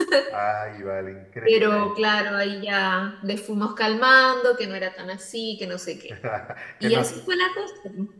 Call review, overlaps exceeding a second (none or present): none